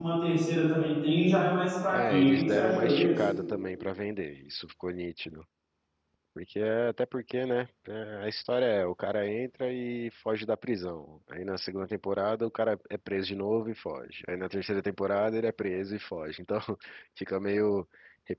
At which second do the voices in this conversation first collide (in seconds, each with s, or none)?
1.9 s